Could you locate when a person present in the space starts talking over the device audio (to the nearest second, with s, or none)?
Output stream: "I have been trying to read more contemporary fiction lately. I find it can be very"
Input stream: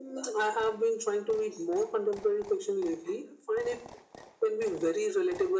none